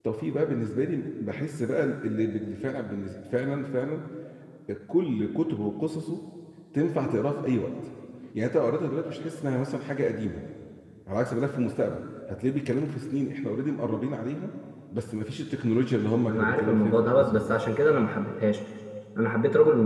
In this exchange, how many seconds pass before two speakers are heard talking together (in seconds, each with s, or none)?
16.3 s